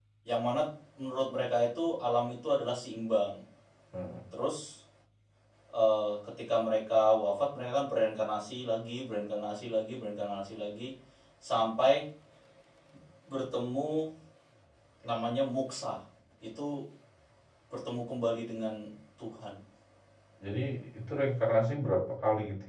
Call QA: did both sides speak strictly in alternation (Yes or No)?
Yes